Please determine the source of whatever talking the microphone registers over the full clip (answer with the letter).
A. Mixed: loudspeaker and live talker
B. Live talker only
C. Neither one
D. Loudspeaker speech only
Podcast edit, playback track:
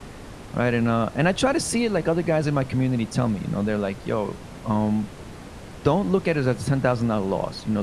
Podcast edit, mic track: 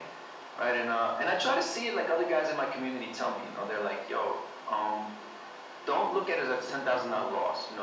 D